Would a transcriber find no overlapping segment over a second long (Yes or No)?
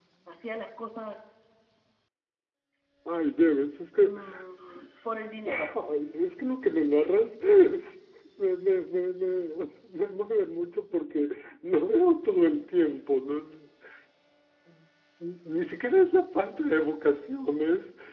Yes